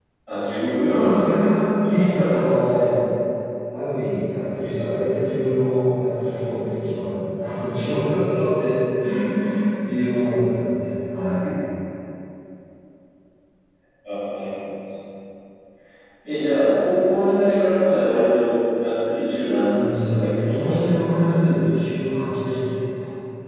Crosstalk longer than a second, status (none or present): present